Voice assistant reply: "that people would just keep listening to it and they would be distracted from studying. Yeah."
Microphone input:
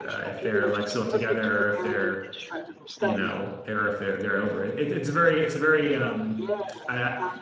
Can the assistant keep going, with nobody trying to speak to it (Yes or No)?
No